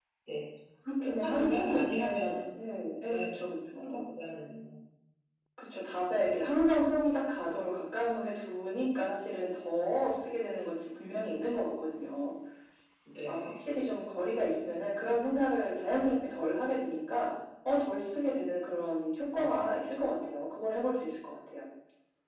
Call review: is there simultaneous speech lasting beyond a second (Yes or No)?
Yes